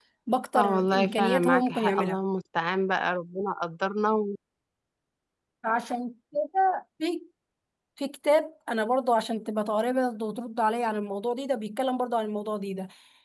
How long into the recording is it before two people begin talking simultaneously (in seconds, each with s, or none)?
0.5 s